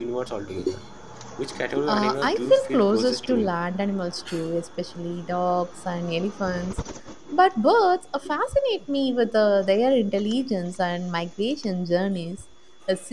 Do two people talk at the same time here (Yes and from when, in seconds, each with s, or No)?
Yes, from 1.9 s